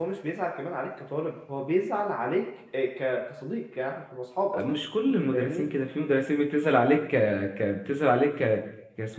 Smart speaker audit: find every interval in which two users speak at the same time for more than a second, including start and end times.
none

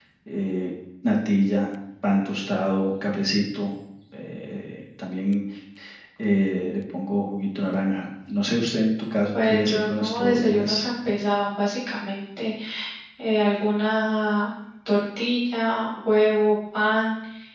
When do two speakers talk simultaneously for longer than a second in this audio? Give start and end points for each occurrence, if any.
9.3-10.8

